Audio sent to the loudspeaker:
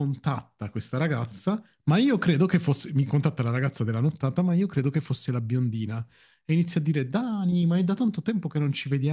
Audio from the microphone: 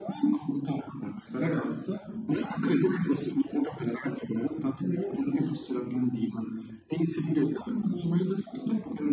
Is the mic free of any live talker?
Yes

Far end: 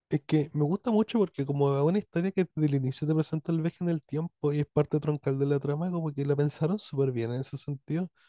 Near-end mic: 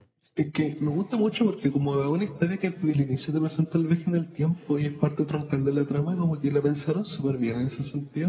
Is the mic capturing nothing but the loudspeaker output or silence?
Yes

